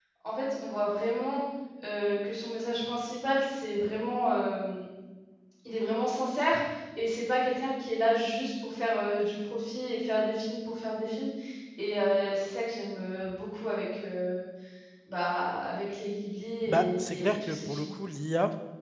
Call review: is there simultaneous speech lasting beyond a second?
Yes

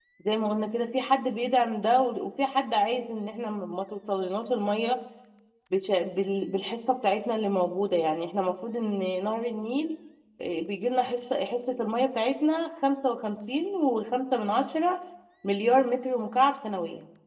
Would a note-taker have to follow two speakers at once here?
No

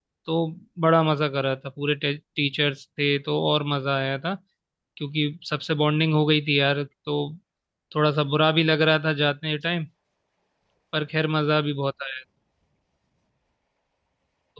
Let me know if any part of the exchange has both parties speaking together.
No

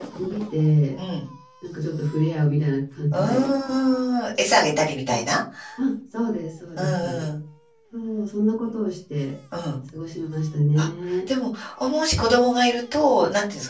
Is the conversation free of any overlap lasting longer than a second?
Yes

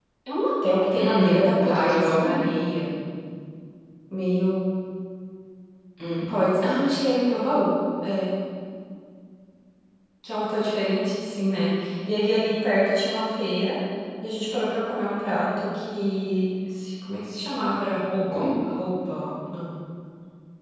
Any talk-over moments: Yes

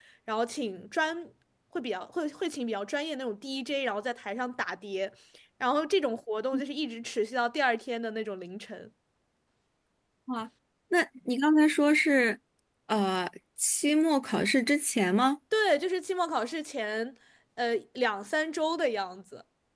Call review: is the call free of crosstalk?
Yes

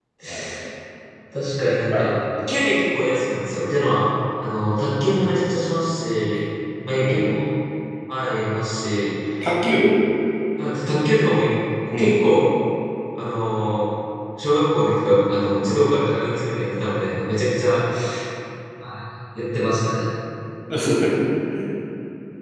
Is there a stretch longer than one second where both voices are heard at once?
No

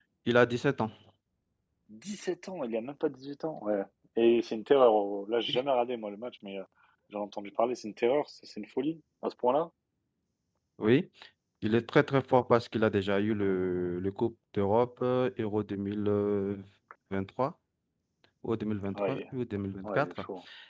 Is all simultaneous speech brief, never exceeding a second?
Yes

